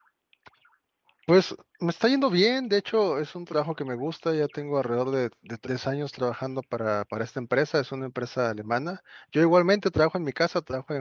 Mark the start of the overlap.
none

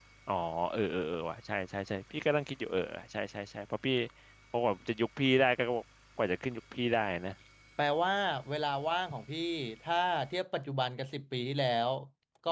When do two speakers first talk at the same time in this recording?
none

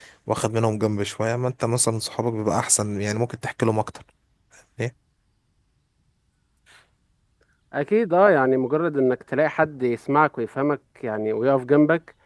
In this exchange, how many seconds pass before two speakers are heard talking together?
none

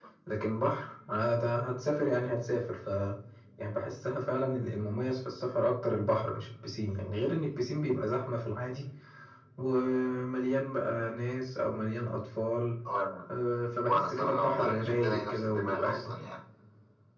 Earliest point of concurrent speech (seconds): 13.9 s

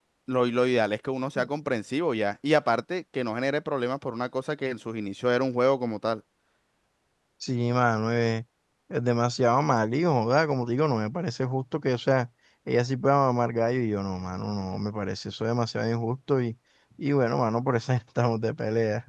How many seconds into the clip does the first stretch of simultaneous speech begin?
none

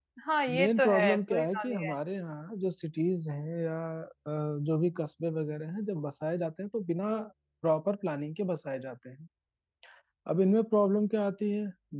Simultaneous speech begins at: 0.6 s

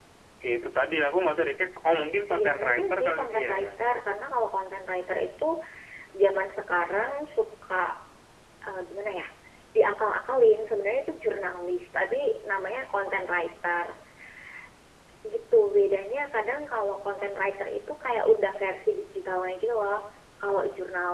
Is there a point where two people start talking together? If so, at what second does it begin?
2.3 s

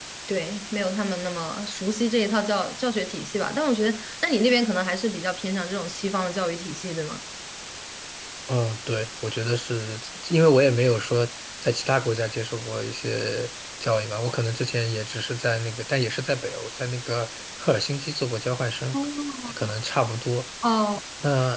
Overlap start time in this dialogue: none

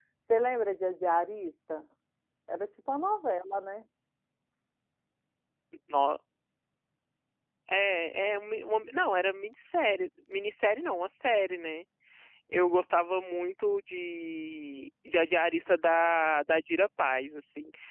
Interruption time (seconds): none

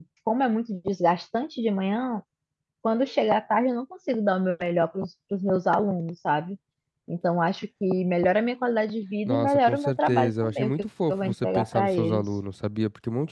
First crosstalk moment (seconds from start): 9.3 s

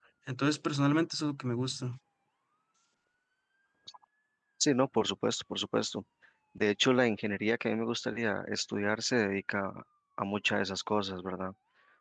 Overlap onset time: none

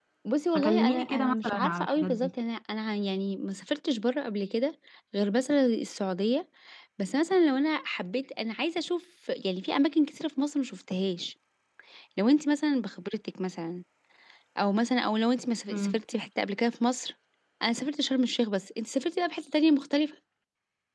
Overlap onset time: 0.5 s

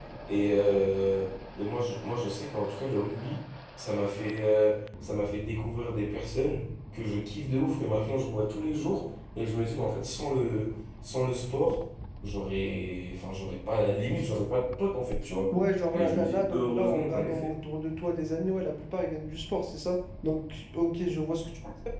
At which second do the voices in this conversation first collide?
15.9 s

